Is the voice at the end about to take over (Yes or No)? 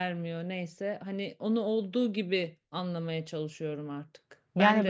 No